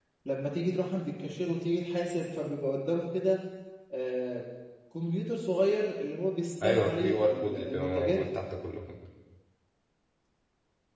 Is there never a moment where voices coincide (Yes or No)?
No